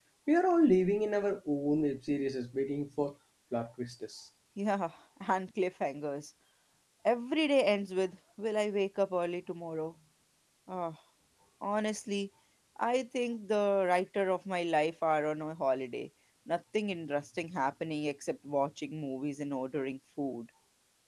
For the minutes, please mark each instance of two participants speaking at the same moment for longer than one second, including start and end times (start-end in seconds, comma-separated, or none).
none